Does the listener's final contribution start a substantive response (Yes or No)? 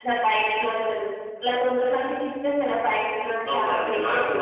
Yes